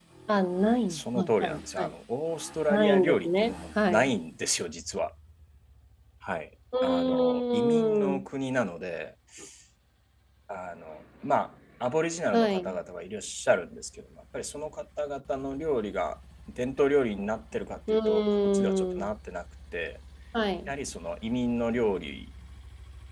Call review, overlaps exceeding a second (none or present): present